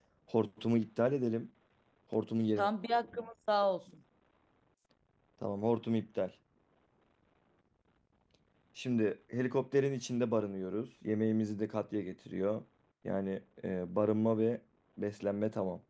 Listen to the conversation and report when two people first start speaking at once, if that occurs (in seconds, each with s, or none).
none